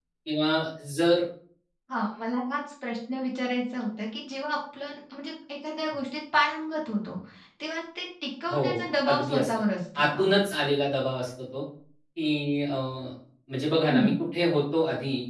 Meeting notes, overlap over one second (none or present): none